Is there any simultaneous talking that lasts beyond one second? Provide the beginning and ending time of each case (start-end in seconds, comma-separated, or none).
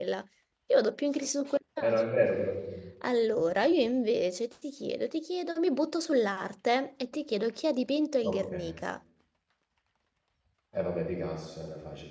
none